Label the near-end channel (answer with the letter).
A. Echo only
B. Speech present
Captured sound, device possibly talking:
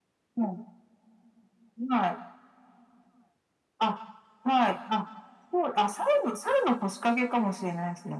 A